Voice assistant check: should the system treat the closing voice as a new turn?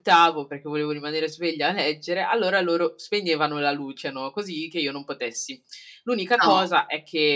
No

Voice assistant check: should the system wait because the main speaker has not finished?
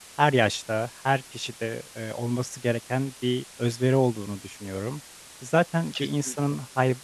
Yes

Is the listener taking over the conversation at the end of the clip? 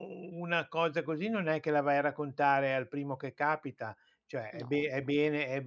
No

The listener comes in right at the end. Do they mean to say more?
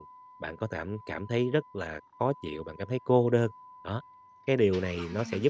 No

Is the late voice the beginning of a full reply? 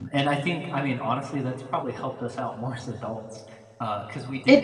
No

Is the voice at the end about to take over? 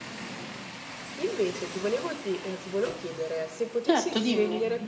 No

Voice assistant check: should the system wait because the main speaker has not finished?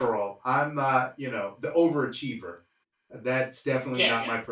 Yes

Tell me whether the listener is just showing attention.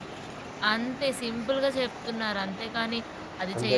Yes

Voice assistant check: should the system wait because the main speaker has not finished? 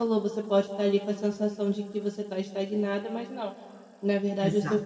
Yes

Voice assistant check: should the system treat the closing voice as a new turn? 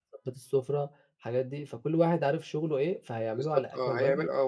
Yes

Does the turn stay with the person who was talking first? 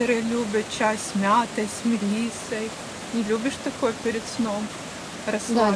No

